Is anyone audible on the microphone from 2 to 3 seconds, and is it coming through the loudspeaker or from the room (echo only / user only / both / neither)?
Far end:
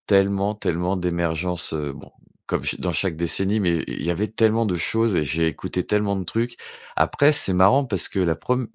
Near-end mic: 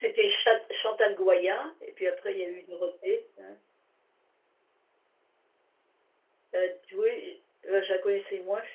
user only